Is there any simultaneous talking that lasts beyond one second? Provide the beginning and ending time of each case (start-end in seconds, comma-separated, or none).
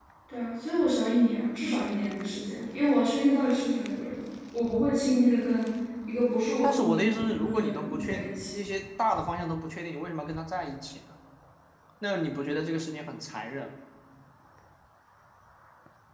6.6-8.5